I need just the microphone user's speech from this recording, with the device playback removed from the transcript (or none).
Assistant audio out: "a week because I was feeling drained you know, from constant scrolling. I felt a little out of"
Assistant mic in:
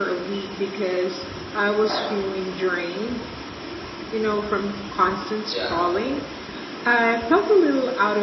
S- Yeah,